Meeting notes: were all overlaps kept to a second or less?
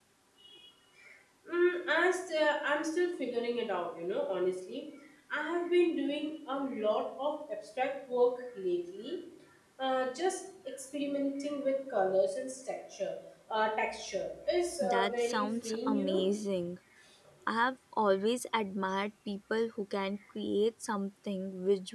No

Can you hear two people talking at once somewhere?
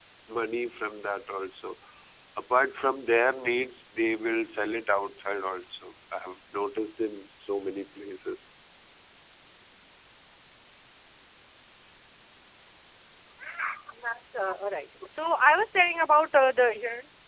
No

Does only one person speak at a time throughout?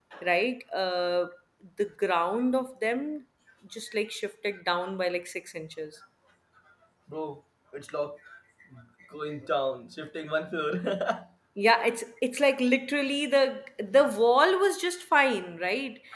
Yes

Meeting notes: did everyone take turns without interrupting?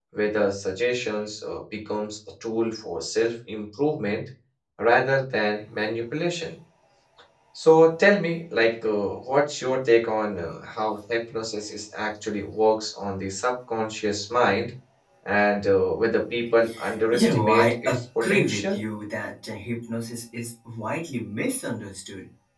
No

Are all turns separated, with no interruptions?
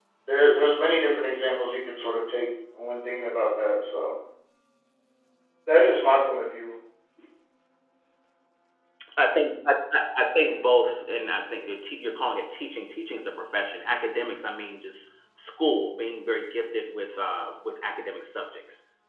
Yes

